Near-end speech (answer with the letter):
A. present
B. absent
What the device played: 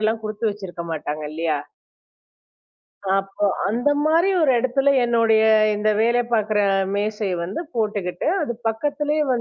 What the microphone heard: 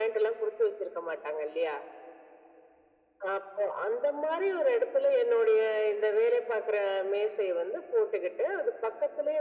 B